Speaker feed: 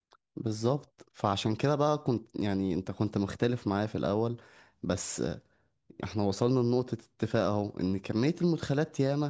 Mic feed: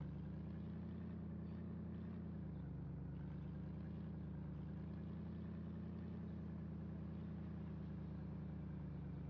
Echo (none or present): none